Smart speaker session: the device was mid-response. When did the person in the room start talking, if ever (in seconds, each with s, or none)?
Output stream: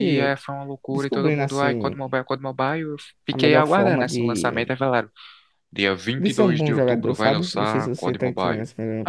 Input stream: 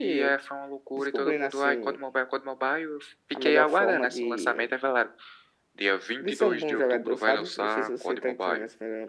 none